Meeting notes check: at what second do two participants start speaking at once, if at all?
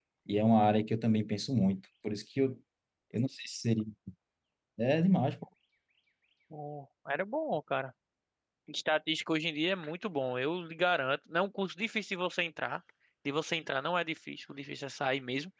none

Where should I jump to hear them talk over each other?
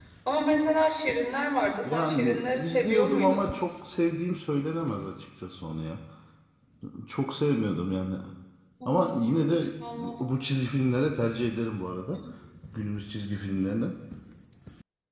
2 s

